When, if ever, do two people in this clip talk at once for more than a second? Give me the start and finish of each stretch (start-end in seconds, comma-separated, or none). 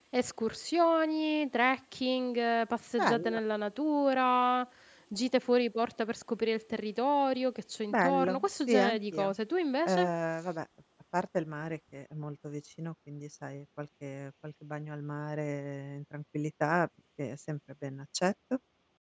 7.9-9.3